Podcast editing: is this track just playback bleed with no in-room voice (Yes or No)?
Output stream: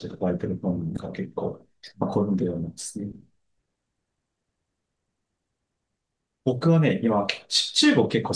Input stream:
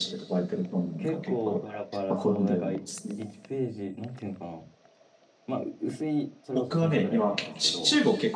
No